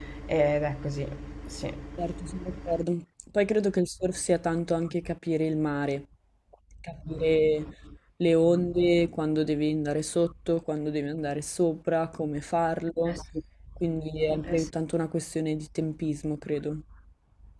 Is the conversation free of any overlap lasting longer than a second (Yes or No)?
Yes